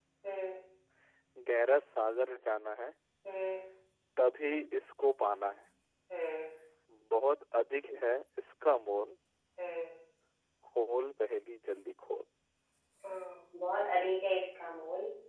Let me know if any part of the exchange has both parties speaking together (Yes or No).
No